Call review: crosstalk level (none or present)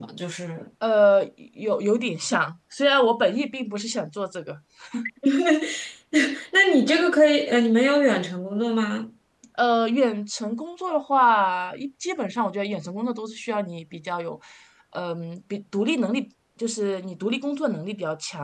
none